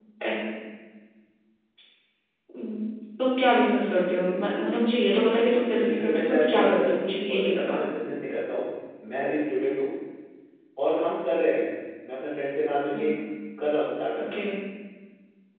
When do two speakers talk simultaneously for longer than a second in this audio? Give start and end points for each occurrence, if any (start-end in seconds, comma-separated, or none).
5.3-7.8